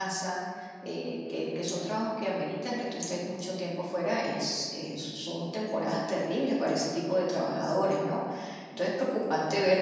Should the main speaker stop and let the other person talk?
No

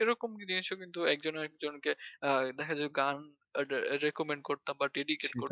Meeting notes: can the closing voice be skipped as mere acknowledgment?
No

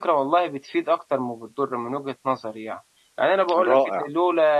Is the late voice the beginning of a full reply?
No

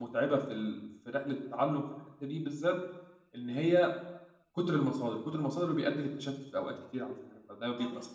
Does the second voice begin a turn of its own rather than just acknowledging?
Yes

